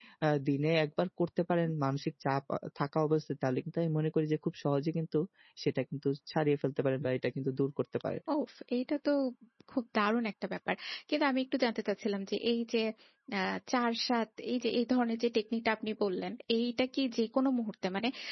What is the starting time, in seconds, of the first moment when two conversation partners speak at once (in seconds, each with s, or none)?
none